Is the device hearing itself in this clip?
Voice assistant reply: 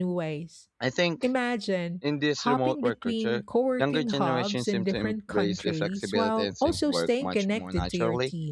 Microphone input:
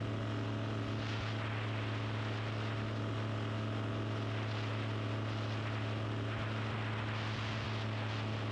No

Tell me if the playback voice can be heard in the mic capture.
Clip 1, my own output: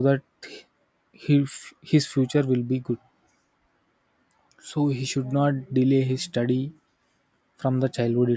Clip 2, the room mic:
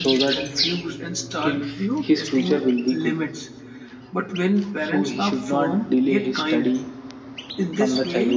Yes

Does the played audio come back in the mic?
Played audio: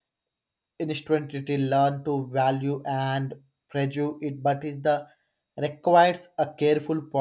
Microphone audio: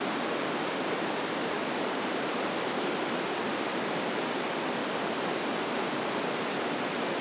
No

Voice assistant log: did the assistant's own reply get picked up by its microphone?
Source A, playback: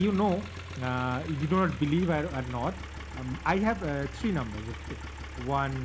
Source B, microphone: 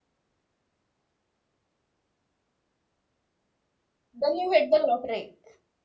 No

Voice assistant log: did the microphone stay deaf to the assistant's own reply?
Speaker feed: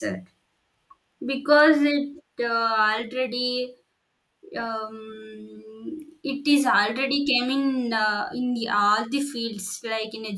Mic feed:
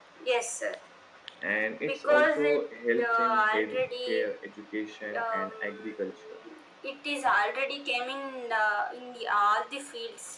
No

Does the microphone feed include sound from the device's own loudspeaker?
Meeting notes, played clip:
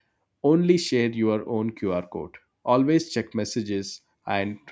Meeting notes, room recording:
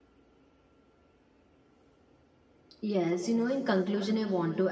No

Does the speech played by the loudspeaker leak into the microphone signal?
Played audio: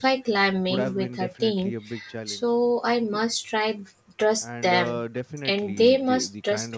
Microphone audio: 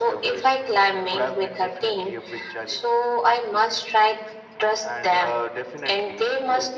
Yes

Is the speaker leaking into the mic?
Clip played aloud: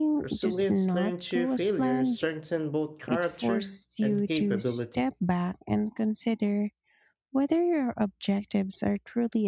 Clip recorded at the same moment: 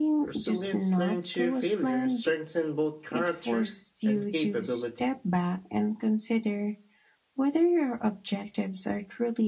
Yes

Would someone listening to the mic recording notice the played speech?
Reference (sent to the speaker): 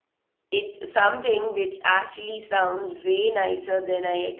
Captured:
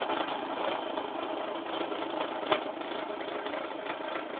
No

